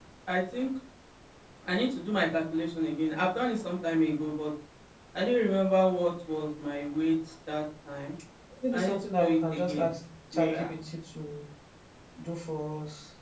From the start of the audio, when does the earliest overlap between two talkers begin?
9 s

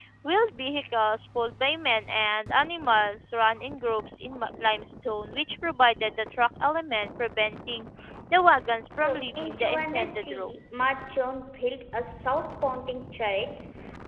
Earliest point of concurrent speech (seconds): 9 s

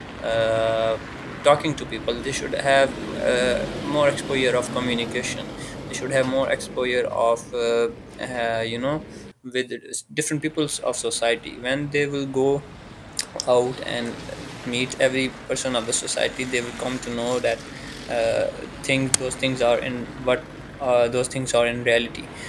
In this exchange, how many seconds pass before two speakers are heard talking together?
none

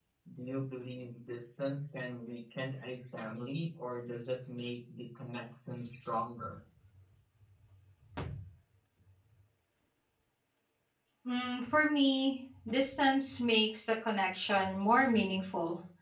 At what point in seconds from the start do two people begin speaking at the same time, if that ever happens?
none

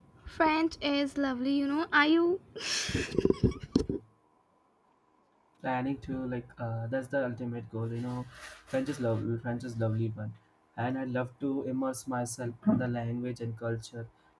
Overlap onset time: none

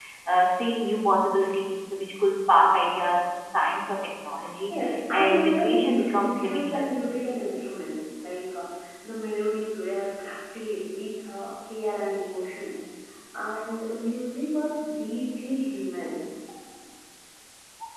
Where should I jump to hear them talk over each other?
5 s

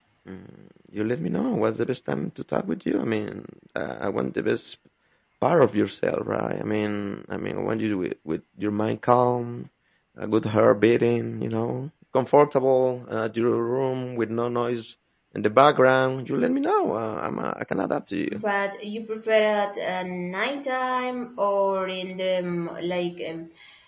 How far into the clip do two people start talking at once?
none

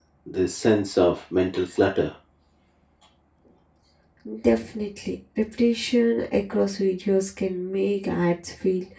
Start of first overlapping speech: none

